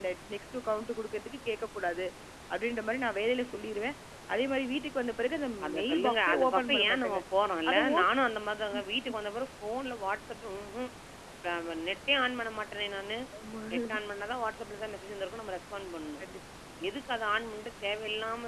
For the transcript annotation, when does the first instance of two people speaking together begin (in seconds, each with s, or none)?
5.7 s